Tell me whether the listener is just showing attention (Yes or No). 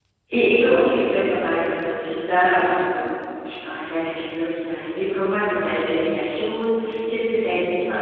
Yes